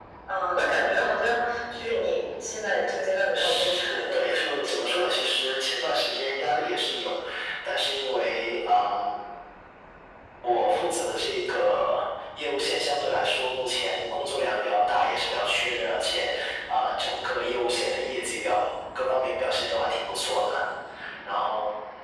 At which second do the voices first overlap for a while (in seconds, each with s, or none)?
3.3 s